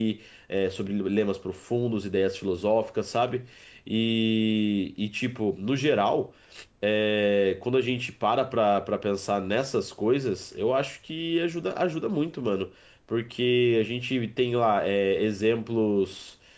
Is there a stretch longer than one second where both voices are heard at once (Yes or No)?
No